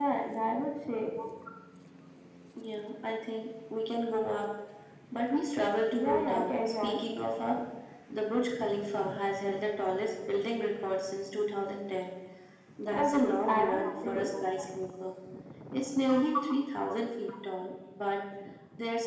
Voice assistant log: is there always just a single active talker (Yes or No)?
No